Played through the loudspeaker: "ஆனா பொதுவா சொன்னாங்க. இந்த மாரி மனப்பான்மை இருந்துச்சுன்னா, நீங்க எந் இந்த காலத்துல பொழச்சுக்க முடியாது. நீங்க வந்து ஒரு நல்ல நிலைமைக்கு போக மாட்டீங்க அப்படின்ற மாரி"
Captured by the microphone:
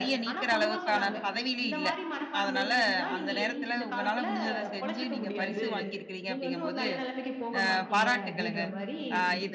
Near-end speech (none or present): present